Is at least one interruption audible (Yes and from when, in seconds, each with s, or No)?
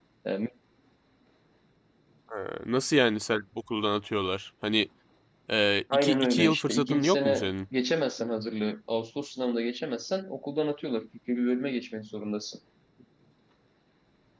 Yes, from 5.9 s